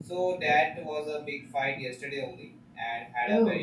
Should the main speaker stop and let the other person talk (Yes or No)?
No